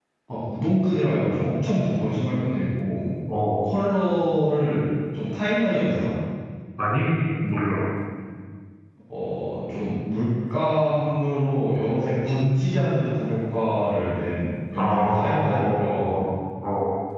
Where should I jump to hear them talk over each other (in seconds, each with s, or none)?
14.7 s